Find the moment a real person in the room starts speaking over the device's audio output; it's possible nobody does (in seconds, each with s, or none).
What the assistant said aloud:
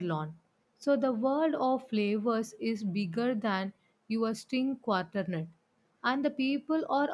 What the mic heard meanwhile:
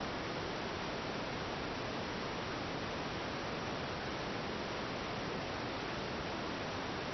none